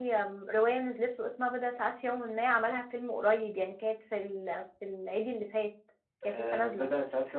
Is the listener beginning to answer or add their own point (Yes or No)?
Yes